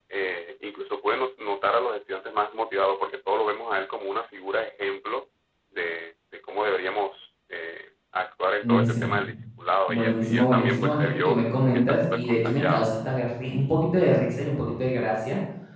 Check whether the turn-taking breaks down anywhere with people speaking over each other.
Yes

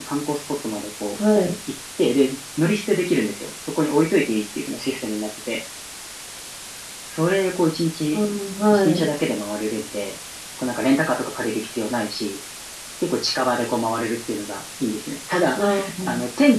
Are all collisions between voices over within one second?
Yes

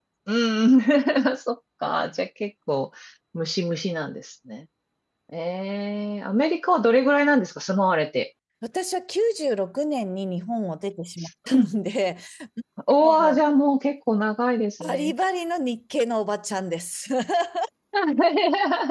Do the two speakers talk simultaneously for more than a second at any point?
No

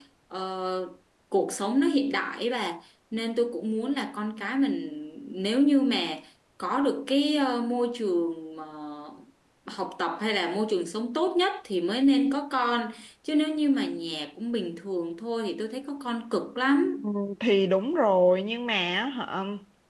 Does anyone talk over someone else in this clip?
No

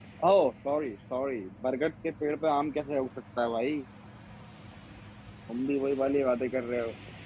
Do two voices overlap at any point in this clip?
No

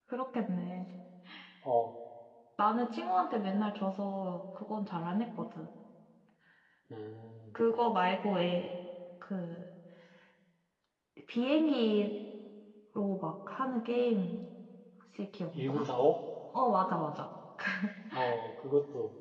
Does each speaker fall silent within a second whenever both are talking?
Yes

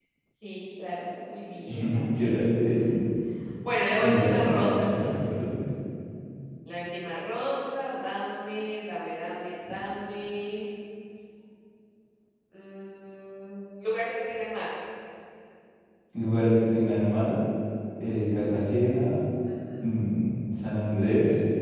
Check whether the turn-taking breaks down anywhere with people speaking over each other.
Yes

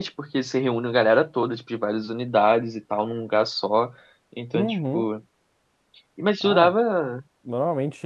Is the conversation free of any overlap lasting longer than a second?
Yes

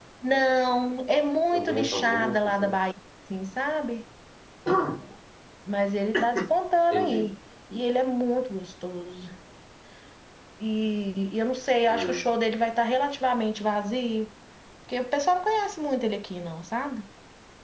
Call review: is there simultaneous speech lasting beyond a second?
Yes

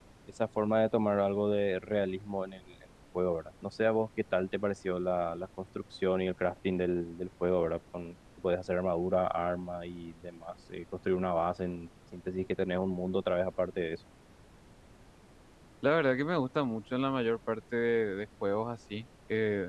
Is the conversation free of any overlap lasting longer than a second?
Yes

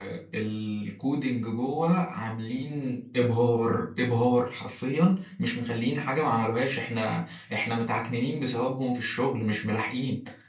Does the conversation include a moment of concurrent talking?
No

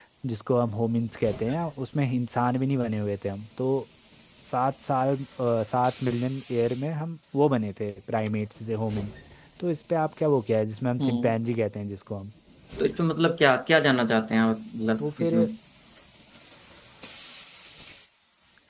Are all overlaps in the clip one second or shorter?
Yes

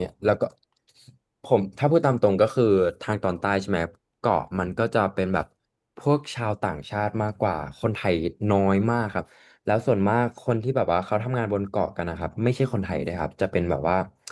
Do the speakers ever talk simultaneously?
No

